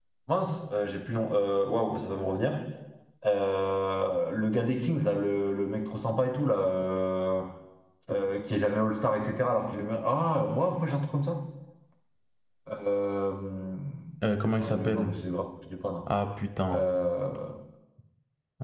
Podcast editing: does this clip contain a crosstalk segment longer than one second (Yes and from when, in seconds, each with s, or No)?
No